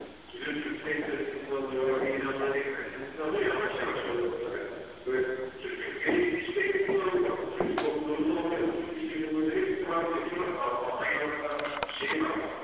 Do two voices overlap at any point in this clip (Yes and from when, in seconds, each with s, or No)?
No